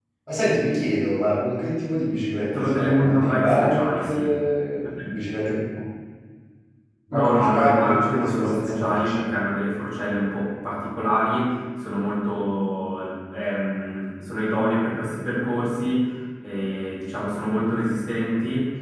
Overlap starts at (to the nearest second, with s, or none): 3 s